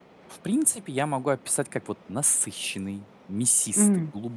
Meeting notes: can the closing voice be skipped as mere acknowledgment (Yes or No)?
Yes